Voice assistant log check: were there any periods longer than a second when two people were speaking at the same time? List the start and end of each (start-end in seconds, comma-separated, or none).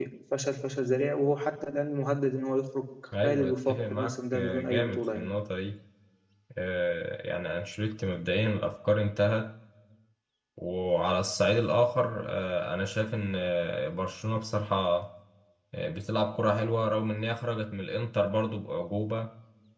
3.2-5.3